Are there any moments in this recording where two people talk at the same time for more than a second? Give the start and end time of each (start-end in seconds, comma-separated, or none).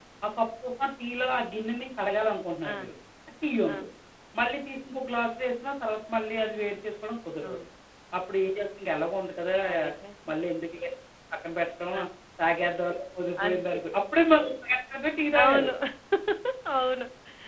none